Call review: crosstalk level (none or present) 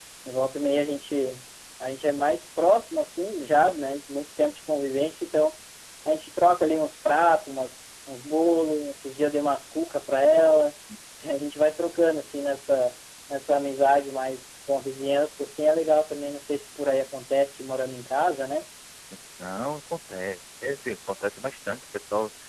none